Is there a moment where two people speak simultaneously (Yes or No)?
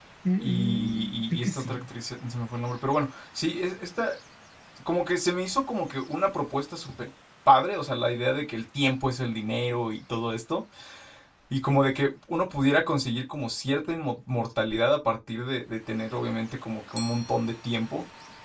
Yes